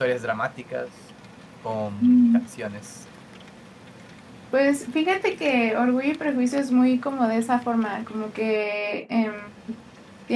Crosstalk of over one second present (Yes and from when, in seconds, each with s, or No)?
No